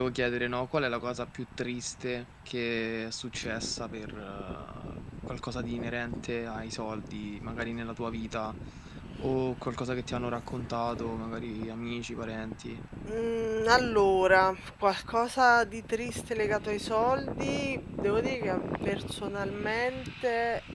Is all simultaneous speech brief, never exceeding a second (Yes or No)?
Yes